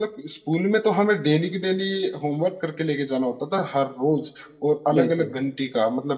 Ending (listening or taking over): listening